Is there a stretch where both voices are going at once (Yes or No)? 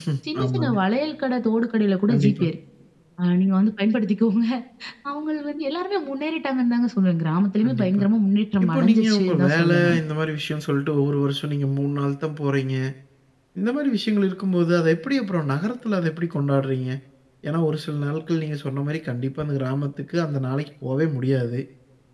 Yes